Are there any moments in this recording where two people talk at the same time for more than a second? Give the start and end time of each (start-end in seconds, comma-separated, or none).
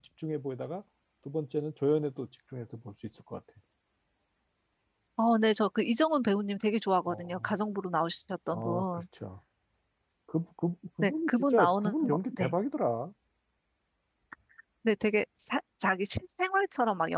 11.0-12.5